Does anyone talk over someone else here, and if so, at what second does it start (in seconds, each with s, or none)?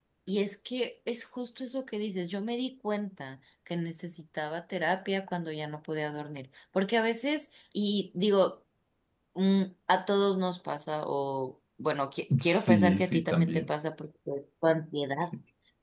12.3 s